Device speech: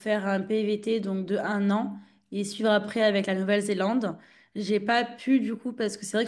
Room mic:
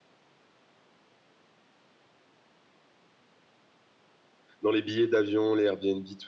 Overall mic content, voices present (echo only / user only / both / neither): user only